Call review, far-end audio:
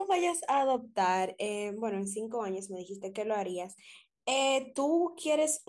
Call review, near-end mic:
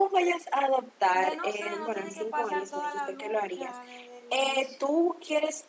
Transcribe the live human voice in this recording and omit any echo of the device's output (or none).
de no sé, no tener que pasar toda la lucha desde el inicio.